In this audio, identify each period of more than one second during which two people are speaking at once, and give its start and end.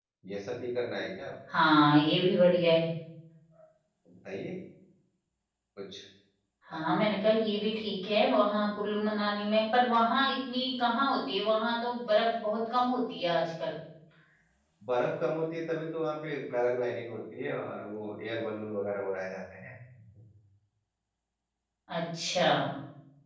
none

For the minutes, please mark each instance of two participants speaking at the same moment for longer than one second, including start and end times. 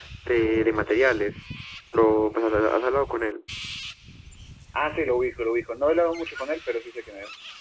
none

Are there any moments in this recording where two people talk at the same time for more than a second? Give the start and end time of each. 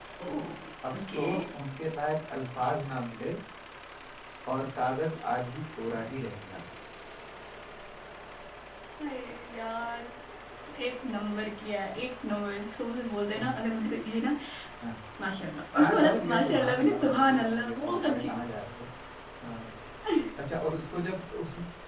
15.8-18.4

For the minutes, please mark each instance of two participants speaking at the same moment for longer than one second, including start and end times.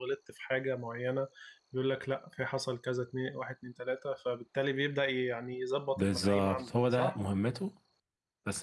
6.0-7.2

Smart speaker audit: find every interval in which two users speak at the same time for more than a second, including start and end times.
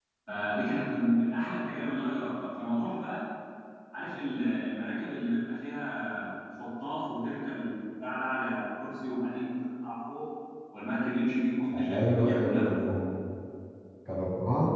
11.7-13.0

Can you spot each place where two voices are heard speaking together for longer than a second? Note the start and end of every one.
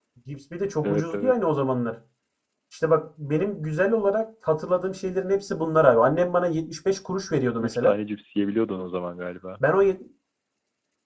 none

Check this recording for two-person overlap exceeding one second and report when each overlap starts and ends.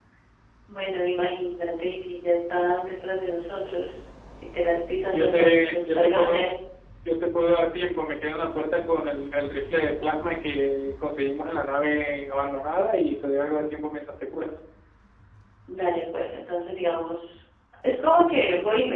5.1-6.4

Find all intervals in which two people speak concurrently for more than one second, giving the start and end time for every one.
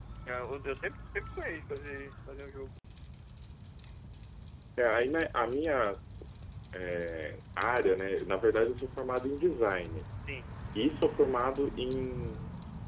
none

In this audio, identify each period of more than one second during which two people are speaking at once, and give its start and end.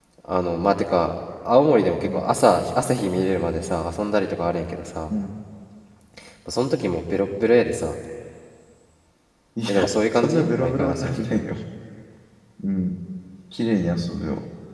10.1-11.4

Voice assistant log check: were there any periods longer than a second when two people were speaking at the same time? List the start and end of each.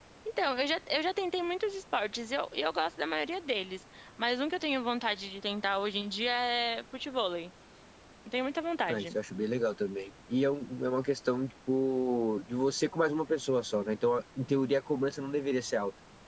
none

